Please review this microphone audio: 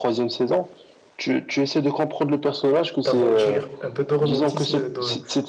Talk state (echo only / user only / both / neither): both